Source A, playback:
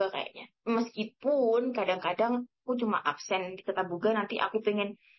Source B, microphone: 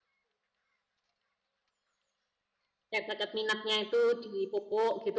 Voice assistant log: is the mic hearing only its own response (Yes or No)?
No